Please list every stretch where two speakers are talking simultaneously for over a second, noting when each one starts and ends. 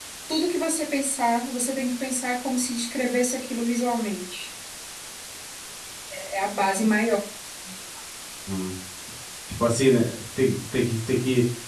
none

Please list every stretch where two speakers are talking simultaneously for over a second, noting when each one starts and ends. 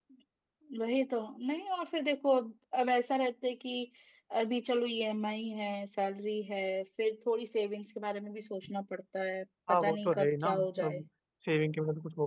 9.7-11.0

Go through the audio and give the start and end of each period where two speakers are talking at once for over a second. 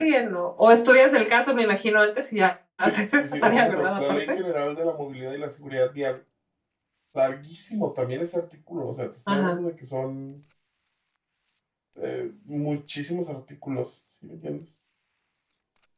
2.8-4.4

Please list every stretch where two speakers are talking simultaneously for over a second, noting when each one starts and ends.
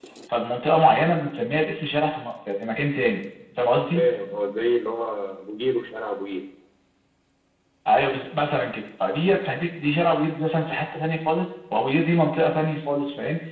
none

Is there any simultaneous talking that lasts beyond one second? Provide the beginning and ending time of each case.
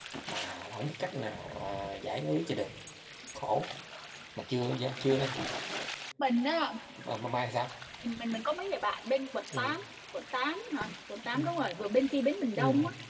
none

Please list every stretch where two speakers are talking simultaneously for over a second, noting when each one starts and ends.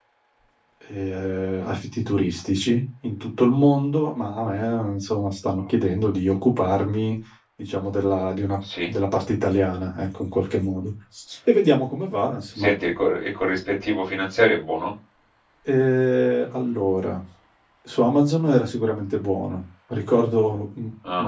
none

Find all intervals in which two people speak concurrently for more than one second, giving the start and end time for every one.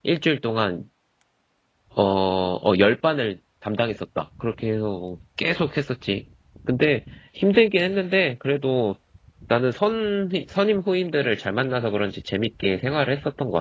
none

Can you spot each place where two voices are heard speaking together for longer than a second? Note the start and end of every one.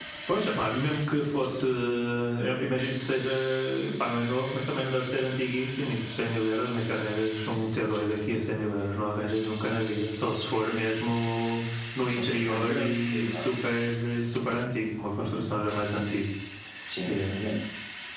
12.1-13.5

